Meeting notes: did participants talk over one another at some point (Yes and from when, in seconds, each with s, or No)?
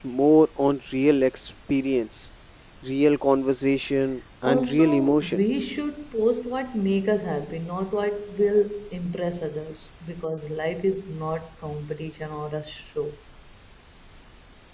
Yes, from 4.4 s